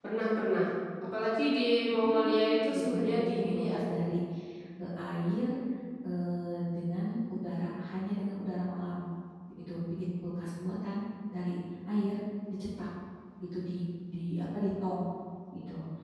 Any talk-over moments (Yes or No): Yes